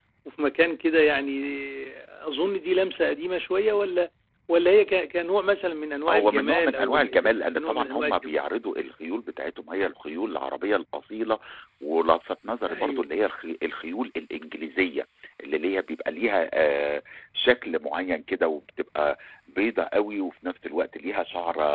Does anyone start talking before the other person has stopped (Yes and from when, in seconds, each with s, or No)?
Yes, from 6.1 s